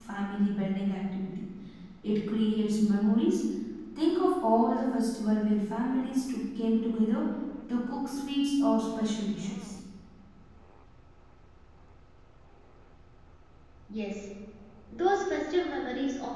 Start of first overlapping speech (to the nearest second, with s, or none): none